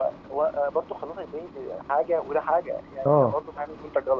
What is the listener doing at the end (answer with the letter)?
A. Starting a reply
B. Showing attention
B